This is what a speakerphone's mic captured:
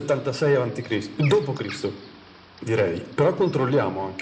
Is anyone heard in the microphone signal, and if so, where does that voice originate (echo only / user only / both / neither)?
echo only